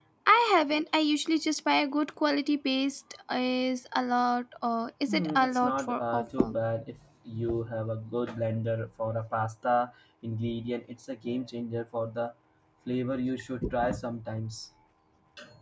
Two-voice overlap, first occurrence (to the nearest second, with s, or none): 5 s